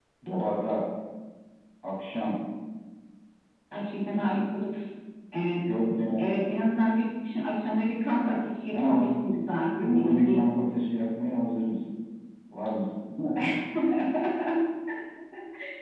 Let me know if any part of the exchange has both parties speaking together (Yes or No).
Yes